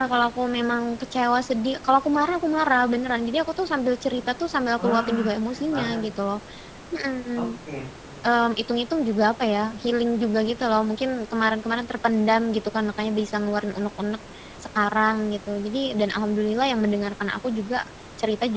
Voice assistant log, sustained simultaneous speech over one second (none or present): present